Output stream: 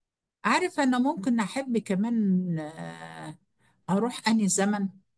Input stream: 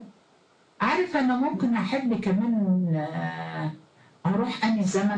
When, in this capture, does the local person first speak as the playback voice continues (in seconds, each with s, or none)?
none